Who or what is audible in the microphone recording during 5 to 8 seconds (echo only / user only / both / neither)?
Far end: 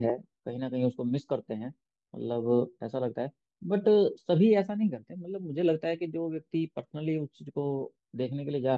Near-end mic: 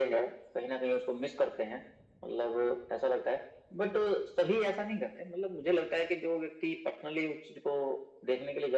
echo only